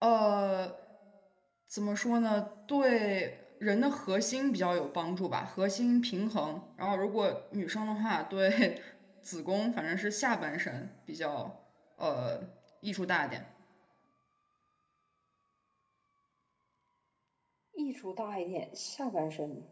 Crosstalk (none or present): none